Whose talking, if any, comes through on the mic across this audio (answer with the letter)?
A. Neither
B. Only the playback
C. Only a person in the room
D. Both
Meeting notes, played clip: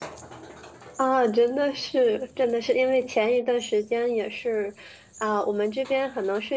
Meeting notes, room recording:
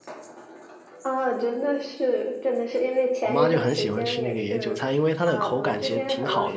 D